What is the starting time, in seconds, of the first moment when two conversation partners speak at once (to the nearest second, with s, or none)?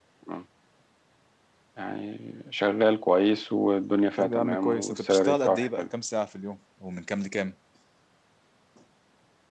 4 s